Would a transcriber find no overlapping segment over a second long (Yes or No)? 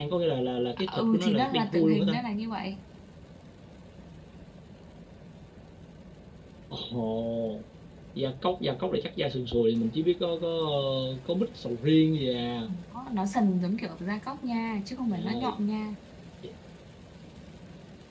No